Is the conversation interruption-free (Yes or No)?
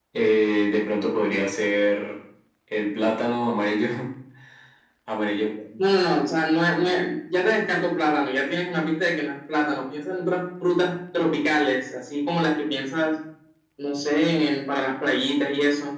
Yes